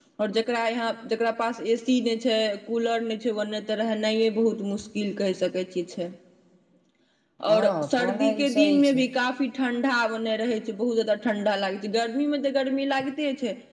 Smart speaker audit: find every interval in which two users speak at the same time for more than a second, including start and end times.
7.5-9.0

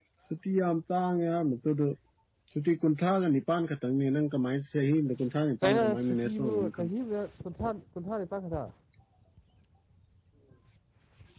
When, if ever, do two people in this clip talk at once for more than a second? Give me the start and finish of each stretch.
5.6-6.9

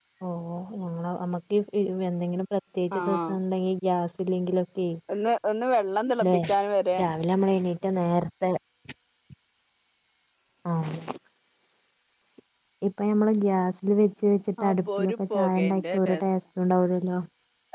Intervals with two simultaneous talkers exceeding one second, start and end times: 14.7-16.2

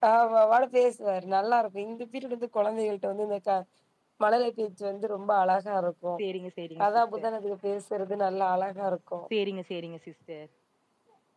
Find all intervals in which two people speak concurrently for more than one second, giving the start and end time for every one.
none

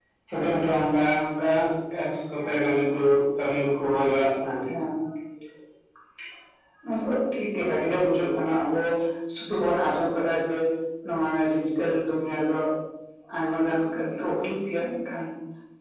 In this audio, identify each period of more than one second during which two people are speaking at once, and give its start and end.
none

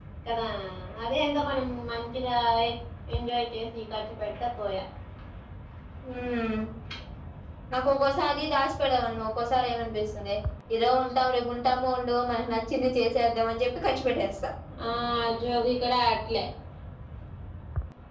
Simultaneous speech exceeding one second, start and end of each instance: none

